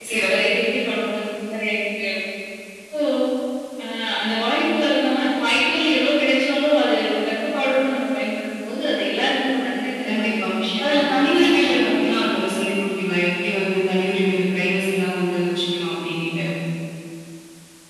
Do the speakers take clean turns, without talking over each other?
No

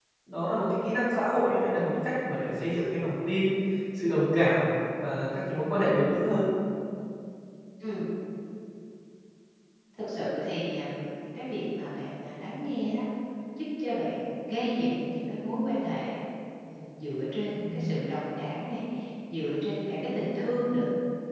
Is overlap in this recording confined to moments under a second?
Yes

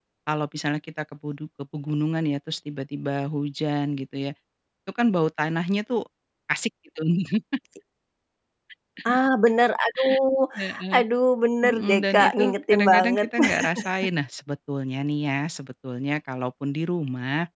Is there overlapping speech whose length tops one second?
Yes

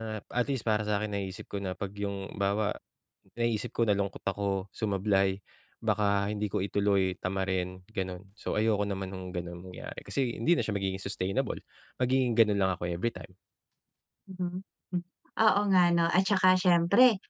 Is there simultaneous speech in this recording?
No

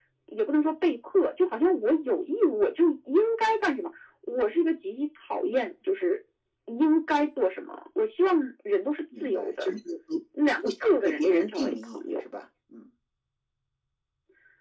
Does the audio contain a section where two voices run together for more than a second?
Yes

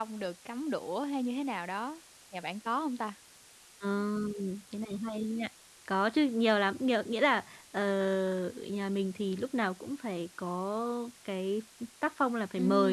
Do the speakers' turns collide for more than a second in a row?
No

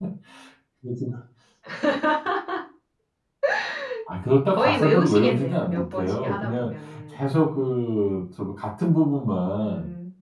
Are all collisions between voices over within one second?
No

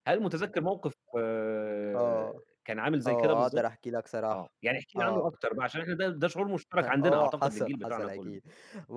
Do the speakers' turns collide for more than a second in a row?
Yes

